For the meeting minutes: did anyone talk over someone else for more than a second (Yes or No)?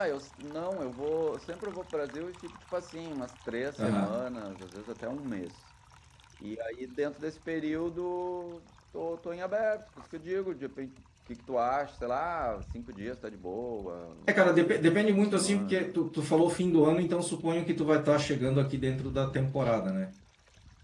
Yes